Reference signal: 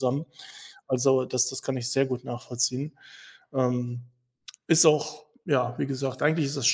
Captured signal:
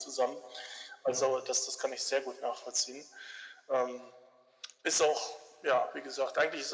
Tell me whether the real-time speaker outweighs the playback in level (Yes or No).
No